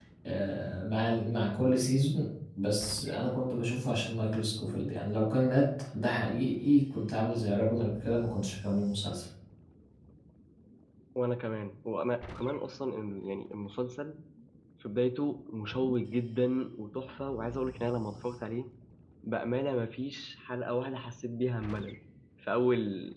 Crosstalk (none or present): none